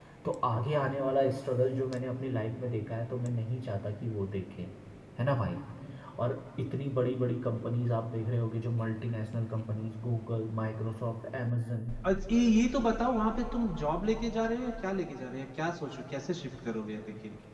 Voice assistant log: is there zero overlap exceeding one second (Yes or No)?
Yes